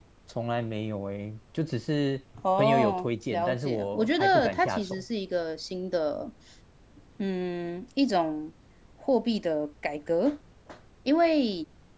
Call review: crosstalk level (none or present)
present